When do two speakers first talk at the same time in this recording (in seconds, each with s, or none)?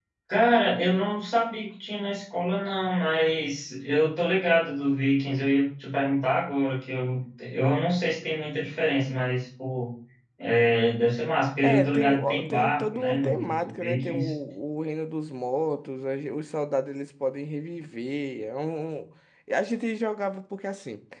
11.6 s